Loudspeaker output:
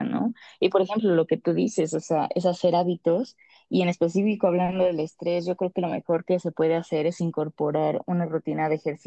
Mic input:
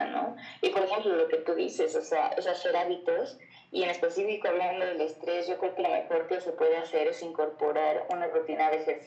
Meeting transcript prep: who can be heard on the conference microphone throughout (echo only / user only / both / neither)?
echo only